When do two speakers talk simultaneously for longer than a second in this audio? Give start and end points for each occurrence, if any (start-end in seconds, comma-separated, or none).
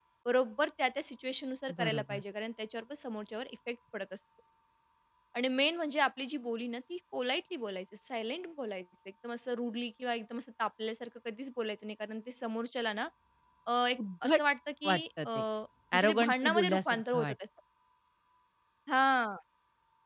15.9-17.4